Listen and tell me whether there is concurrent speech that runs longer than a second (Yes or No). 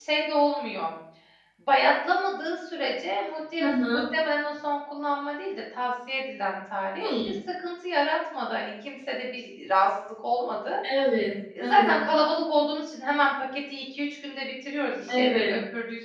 No